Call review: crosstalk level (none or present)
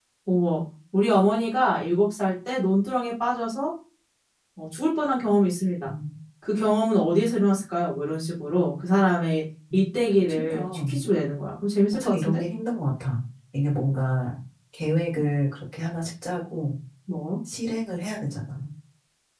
present